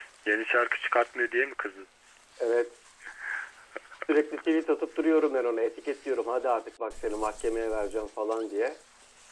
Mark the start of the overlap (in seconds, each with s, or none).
none